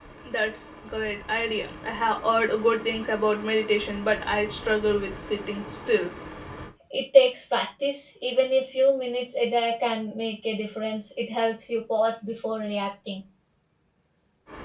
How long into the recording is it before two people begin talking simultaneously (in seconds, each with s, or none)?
none